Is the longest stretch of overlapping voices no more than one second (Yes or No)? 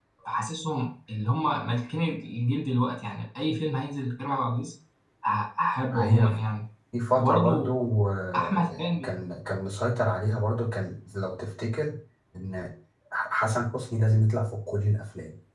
Yes